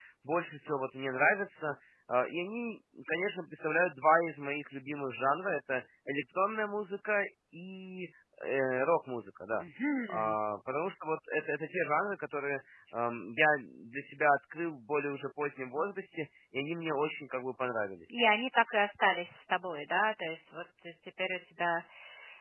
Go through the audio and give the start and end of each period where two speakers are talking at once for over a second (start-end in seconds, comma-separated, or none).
none